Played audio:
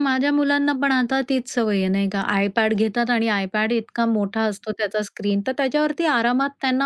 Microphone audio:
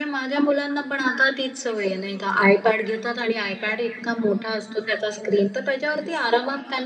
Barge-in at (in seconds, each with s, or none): none